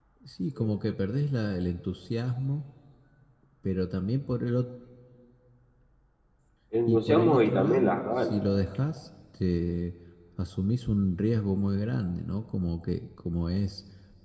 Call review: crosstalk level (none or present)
present